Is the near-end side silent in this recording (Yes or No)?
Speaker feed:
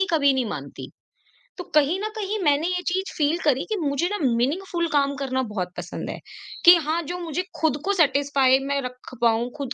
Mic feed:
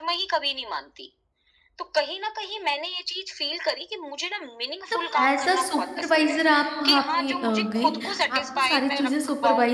No